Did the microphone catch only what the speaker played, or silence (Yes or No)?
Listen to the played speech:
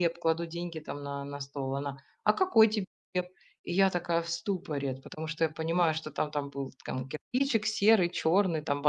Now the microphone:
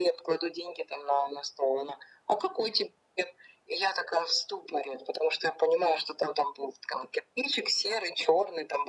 Yes